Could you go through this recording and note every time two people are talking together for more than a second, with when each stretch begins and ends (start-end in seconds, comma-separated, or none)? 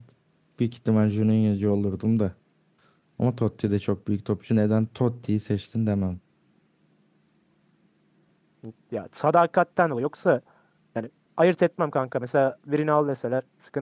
none